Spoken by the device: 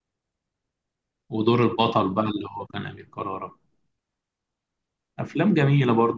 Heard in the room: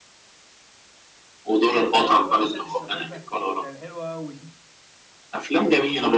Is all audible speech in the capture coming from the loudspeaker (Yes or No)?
No